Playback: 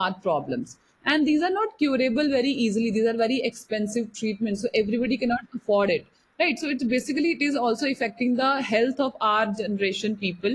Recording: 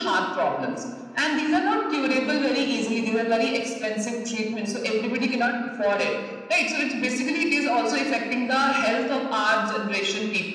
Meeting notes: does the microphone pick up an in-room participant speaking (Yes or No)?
No